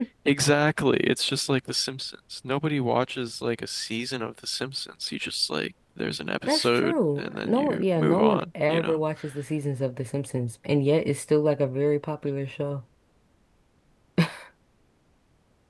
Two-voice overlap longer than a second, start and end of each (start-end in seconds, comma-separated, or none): 6.5-9.0